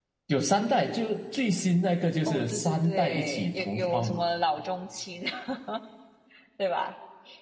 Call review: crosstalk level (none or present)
present